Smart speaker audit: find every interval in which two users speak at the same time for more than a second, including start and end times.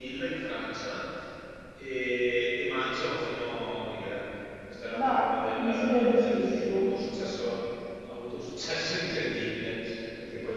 5.6-6.9

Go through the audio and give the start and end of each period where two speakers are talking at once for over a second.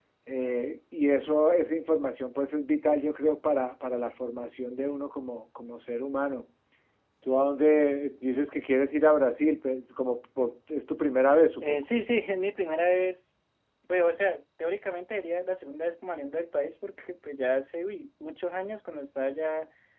none

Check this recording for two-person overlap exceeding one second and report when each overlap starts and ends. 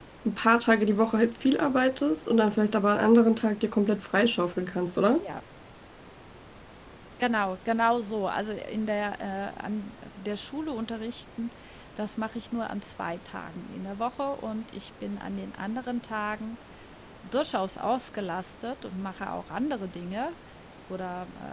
none

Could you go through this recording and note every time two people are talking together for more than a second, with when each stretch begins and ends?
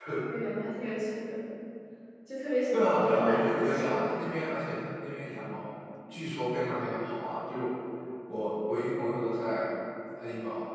2.7-4.0

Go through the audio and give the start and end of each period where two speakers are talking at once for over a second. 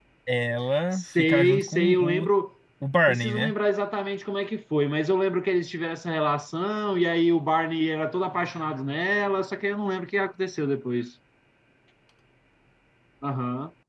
0.9-2.3

